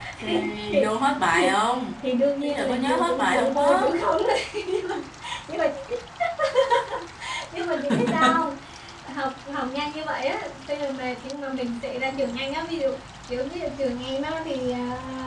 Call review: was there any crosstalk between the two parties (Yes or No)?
Yes